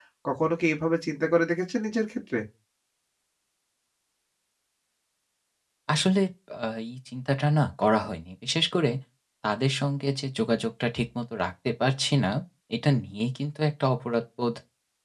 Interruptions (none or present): none